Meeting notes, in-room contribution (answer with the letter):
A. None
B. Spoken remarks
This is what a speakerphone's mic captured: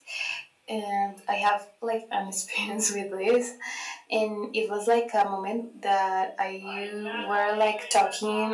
A